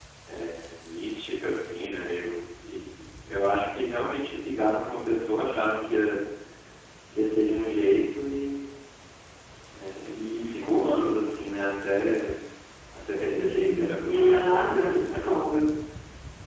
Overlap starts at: 13.3 s

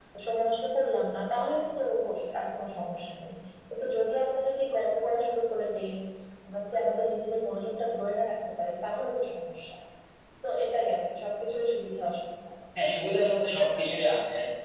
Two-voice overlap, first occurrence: none

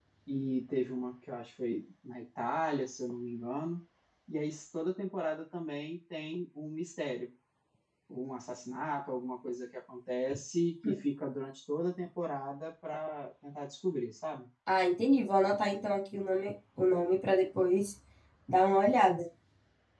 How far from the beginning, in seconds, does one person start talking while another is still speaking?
none

